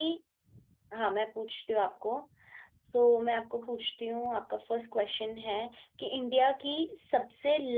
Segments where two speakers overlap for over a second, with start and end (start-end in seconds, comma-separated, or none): none